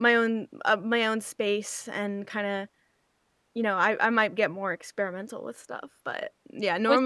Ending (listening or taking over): listening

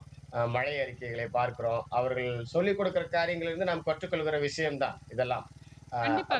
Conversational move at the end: taking over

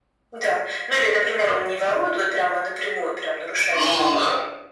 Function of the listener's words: listening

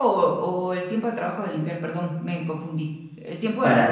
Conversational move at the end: taking over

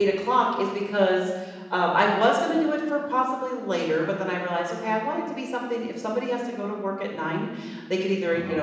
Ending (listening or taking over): listening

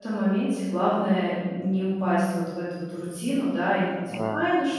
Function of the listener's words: listening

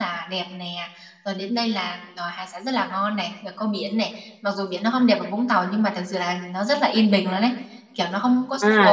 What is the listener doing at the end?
taking over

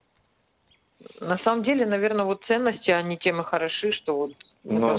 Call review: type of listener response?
listening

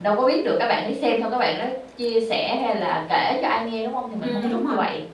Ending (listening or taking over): taking over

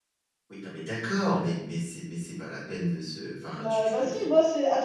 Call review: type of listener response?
taking over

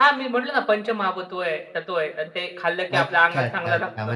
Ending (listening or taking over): taking over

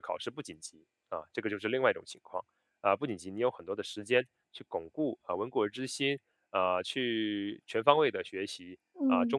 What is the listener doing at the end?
listening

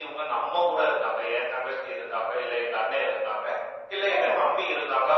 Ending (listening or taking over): listening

